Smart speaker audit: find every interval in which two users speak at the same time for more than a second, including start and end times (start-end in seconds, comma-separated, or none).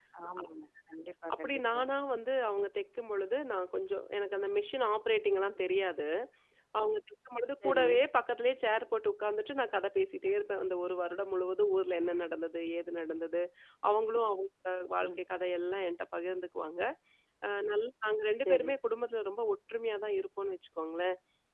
none